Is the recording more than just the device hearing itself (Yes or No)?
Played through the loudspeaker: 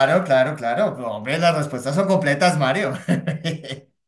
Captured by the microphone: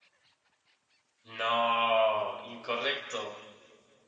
Yes